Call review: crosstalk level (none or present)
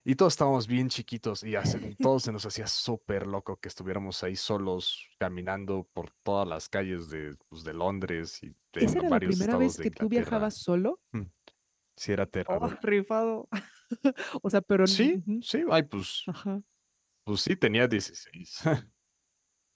present